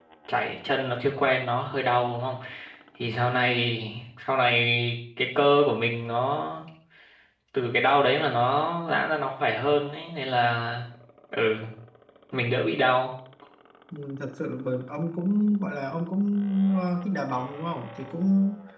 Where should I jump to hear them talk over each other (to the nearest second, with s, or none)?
none